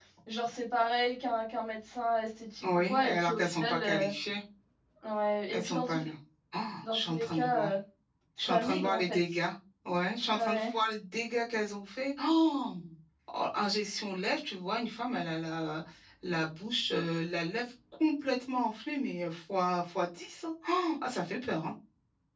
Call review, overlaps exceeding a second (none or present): present